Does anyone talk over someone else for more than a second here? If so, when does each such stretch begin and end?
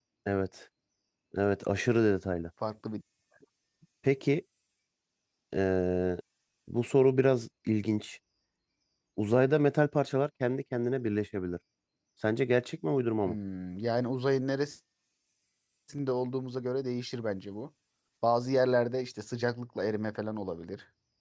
none

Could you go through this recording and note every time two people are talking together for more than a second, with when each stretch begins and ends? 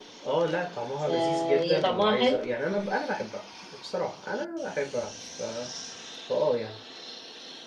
1.1-2.5

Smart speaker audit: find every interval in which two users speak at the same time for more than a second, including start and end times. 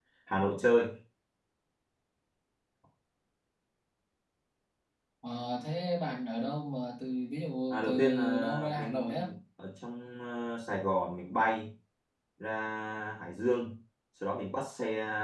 7.7-9.3

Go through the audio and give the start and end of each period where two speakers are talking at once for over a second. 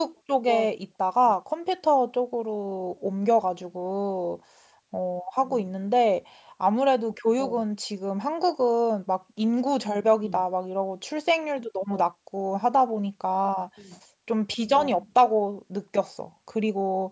none

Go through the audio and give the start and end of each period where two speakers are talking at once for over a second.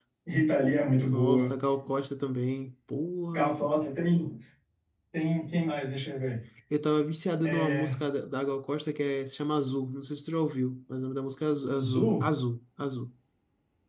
none

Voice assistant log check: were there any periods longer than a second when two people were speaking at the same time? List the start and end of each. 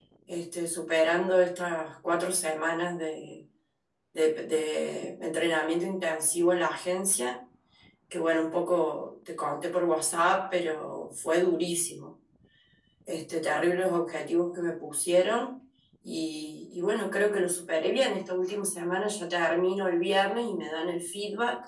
none

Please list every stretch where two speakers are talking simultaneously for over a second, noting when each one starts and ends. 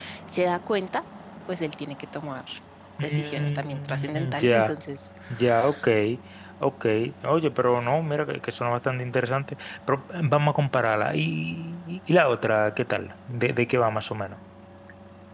3.0-4.7

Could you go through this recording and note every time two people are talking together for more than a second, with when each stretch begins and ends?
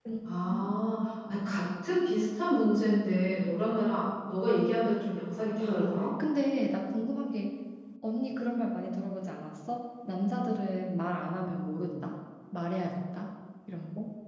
none

